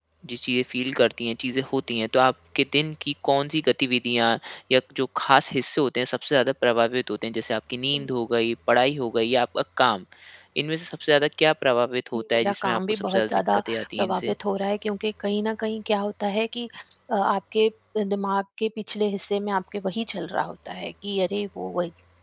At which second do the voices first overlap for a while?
12.1 s

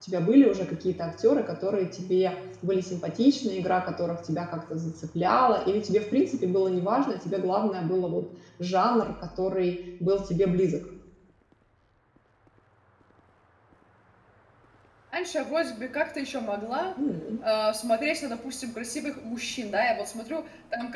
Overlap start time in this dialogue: none

